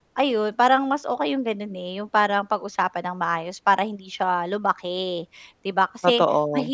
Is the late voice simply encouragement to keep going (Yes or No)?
Yes